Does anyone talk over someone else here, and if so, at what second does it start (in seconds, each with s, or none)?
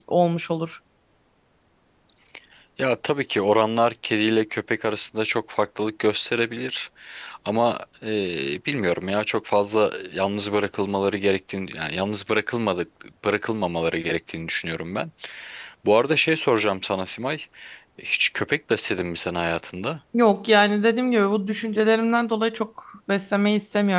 none